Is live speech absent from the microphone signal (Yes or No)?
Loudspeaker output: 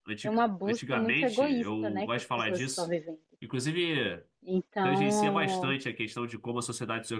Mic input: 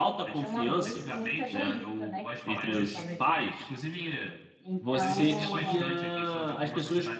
No